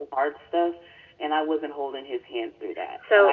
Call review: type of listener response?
taking over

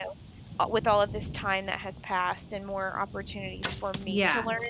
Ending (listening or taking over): listening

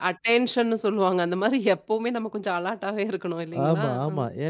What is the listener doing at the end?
taking over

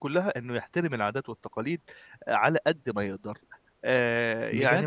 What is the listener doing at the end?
taking over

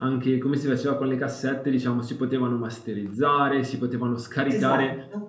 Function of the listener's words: listening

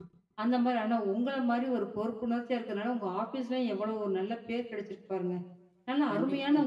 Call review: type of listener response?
listening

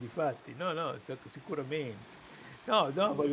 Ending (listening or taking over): listening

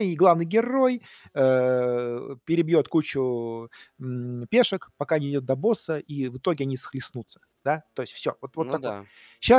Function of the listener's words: listening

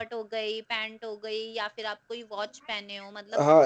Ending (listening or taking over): taking over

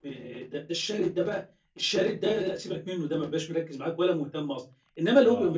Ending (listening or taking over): listening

